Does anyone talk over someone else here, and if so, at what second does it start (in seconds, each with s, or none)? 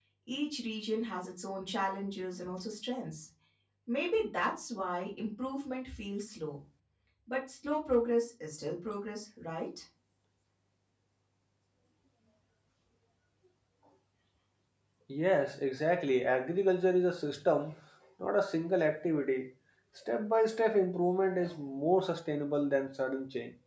none